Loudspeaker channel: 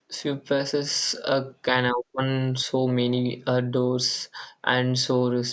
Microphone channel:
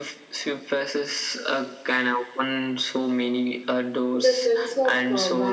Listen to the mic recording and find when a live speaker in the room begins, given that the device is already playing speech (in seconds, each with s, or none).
4.1 s